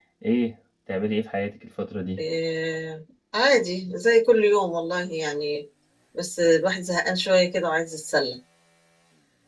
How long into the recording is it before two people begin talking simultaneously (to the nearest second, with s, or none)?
none